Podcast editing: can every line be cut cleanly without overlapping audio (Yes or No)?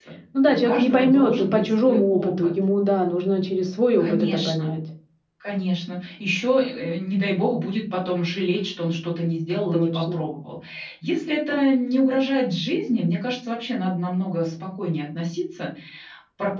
No